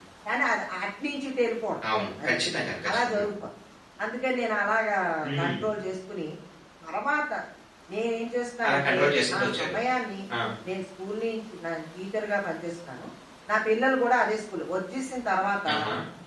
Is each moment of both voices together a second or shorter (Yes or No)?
Yes